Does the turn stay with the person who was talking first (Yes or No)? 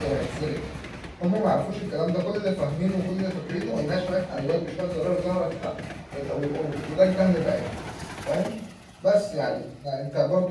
Yes